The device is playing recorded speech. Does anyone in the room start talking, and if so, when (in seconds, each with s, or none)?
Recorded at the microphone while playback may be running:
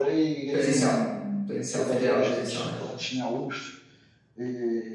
0.5 s